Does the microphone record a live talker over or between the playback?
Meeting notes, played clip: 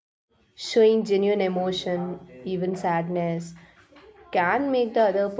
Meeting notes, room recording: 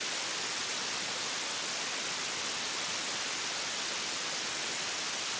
No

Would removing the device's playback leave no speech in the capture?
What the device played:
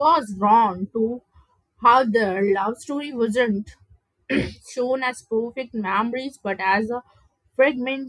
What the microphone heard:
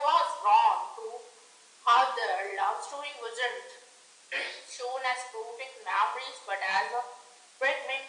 Yes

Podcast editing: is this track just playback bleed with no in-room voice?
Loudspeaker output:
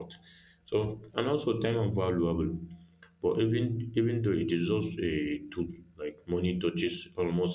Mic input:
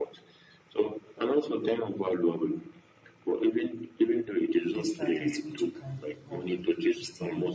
No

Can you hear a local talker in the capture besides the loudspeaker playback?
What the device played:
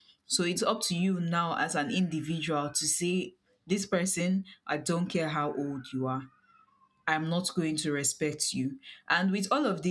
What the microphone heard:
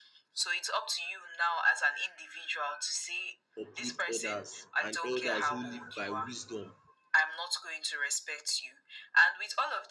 Yes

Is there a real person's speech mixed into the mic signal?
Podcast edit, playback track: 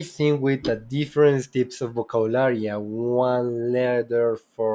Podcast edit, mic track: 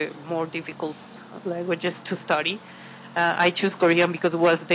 Yes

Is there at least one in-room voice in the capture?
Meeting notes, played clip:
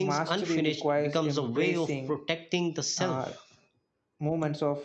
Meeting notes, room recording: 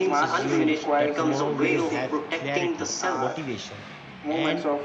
Yes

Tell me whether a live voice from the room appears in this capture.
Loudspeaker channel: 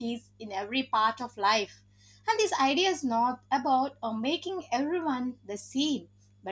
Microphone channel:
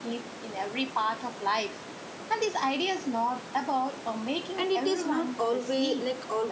Yes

